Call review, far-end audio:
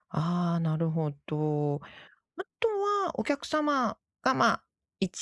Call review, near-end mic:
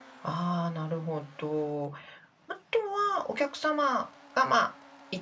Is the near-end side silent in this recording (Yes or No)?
Yes